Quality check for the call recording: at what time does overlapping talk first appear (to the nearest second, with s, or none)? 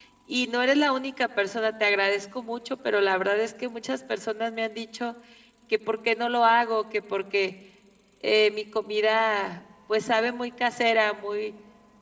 none